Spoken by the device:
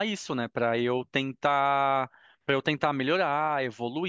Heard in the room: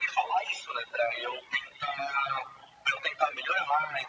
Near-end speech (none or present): none